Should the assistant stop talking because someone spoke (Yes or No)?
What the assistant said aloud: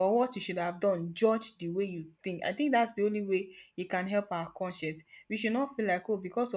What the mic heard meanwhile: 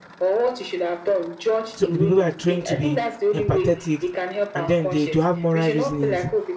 Yes